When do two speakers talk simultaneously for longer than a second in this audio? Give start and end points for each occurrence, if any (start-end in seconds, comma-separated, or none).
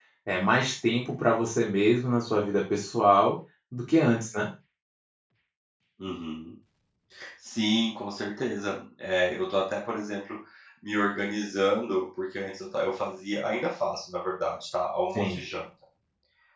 none